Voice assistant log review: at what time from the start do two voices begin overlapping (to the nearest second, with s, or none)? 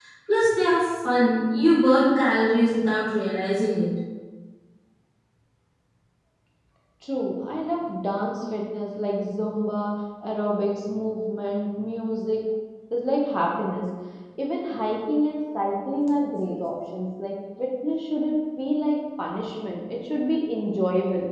none